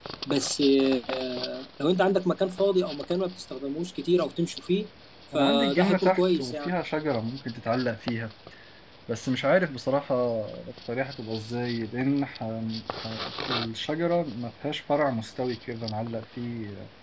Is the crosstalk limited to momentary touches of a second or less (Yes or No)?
No